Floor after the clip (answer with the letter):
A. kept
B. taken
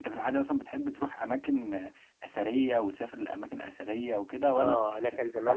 B